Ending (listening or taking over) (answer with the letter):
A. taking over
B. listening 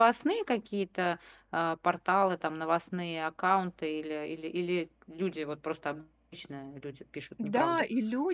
A